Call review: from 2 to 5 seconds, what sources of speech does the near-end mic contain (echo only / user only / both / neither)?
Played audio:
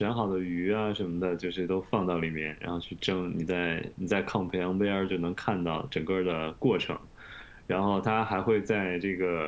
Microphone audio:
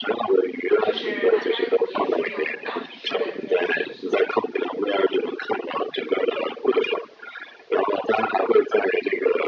both